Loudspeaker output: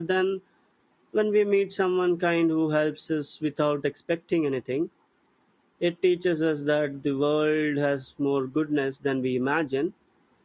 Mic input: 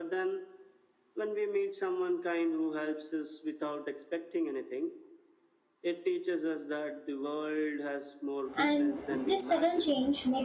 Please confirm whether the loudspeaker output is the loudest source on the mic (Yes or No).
No